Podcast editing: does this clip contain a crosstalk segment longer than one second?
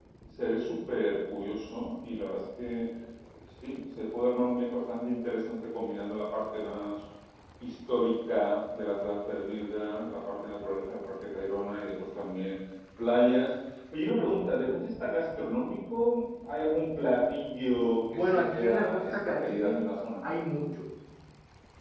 Yes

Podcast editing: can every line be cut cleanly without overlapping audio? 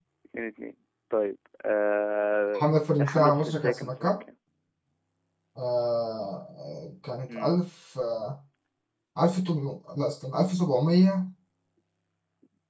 No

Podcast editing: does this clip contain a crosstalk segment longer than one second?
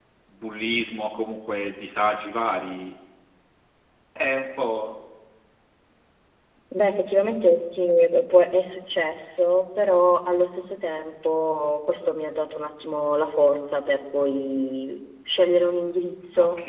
No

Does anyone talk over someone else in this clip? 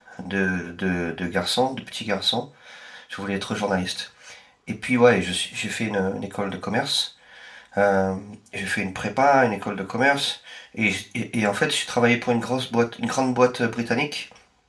No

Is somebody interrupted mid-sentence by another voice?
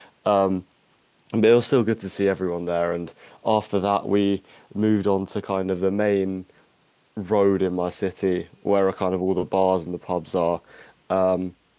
No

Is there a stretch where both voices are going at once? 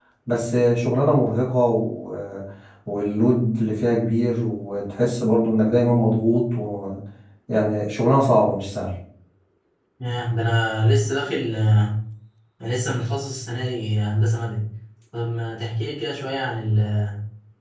No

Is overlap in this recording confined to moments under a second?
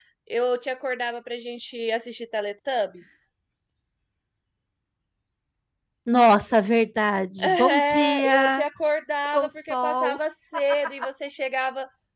No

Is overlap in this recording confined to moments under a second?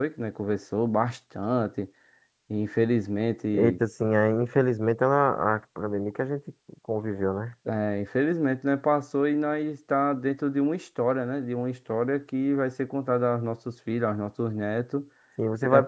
Yes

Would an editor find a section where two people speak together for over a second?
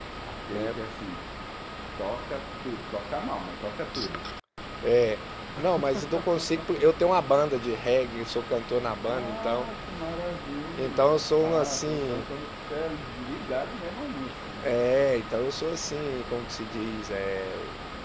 Yes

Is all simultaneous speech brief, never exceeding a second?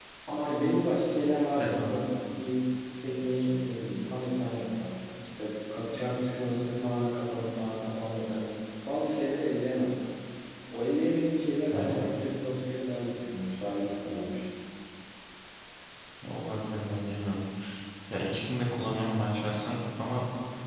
Yes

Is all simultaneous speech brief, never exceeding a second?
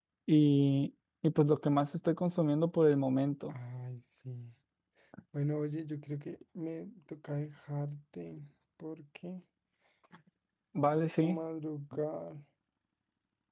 Yes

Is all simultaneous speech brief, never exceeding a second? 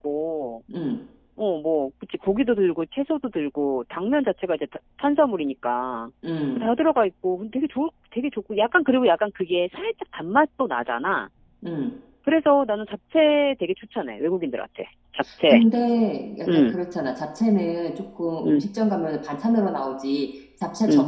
Yes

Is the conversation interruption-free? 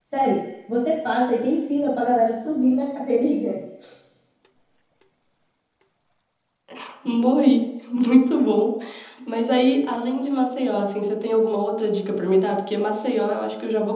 Yes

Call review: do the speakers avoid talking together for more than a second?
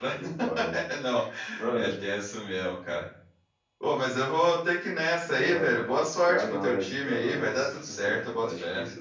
No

